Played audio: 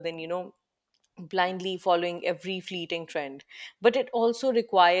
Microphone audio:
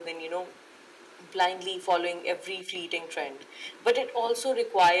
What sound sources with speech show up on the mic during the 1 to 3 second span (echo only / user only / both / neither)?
echo only